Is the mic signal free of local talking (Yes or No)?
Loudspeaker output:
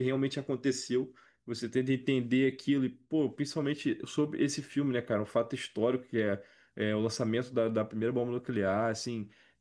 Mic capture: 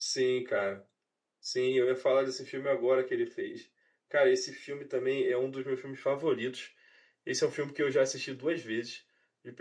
No